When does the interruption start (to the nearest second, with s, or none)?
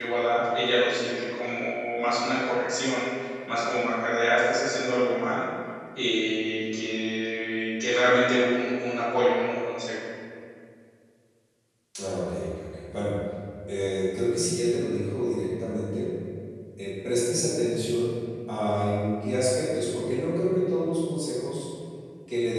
none